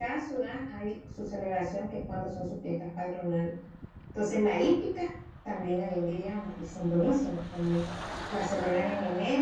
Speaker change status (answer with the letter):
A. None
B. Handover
A